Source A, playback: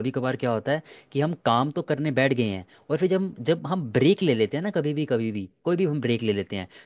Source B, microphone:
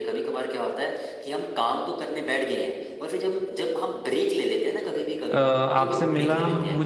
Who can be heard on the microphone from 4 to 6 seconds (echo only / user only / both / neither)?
both